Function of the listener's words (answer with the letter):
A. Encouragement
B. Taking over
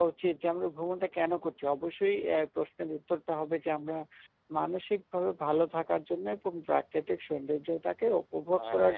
A